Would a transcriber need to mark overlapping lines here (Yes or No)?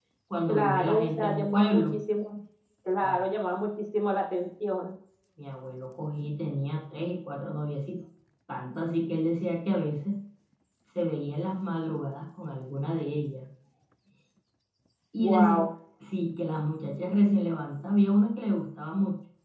Yes